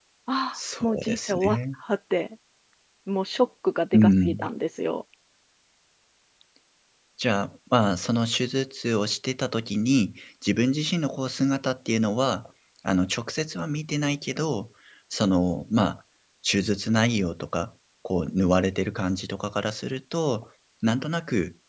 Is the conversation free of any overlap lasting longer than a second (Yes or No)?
No